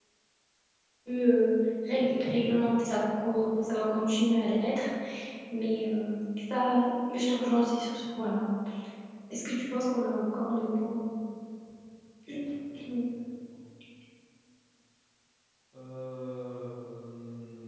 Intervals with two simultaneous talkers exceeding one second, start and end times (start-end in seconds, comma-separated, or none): none